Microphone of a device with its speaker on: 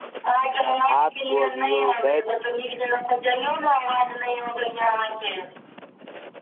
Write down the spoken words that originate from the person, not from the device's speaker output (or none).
भात खुअबियौ दालि